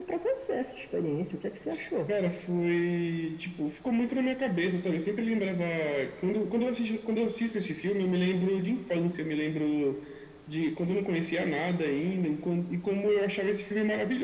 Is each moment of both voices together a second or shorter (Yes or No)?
Yes